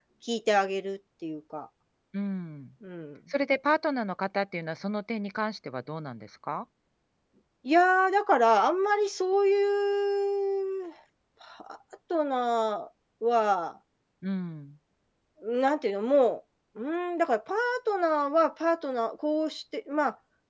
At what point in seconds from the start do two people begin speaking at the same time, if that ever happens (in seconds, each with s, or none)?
none